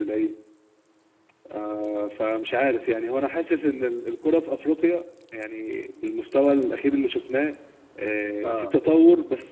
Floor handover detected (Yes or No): No